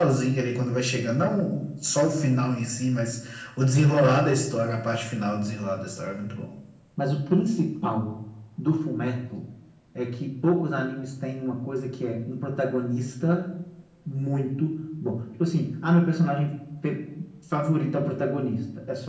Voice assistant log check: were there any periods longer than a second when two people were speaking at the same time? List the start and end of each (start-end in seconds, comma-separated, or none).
none